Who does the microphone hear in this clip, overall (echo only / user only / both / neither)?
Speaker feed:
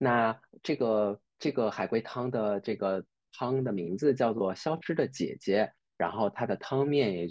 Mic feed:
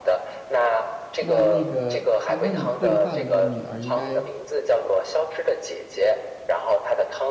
both